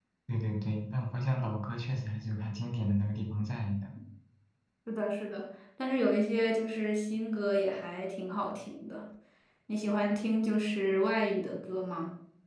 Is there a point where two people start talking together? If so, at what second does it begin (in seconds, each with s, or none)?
none